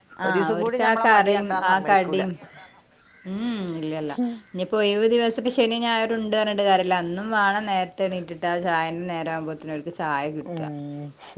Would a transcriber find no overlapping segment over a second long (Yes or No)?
No